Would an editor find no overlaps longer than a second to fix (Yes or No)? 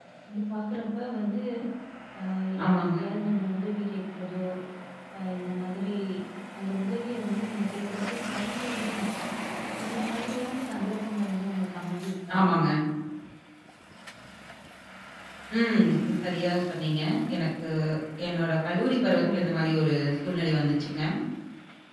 Yes